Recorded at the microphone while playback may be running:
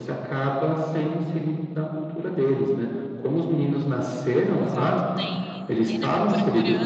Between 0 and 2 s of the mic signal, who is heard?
echo only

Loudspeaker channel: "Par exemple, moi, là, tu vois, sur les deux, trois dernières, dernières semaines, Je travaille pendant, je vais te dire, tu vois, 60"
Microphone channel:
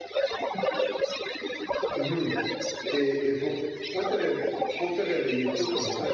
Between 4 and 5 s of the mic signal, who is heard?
both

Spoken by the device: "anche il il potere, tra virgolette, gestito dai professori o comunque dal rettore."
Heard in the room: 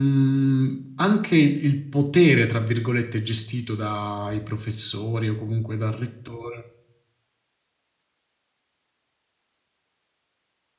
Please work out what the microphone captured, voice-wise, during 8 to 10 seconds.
neither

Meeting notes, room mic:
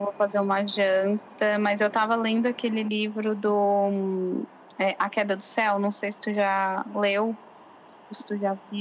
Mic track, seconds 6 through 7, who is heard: echo only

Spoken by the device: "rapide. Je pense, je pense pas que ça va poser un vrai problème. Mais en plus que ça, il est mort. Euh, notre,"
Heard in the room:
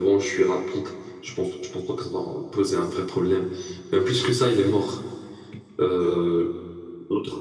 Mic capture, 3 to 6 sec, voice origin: echo only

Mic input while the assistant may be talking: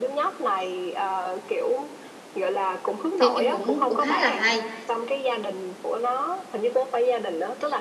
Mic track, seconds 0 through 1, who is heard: echo only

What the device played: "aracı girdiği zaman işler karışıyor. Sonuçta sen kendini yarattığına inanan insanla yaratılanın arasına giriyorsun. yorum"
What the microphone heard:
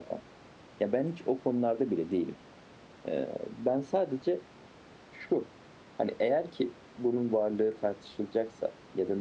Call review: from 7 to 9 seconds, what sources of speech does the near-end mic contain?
user only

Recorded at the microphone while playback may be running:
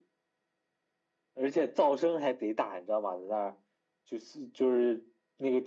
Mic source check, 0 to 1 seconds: neither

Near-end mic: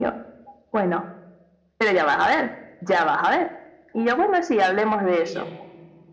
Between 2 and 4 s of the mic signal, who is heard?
echo only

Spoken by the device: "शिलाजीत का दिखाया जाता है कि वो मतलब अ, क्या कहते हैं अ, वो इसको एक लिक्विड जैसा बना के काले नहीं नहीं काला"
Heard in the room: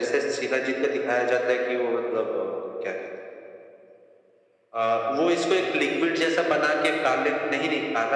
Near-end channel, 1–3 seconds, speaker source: echo only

